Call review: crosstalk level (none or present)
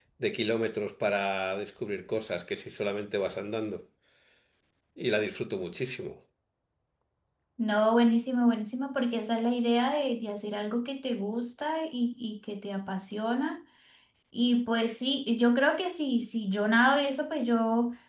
none